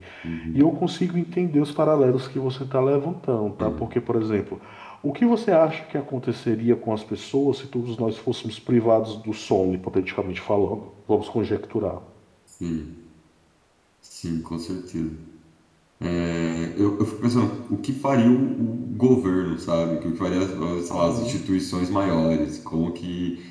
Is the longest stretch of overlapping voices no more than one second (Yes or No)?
Yes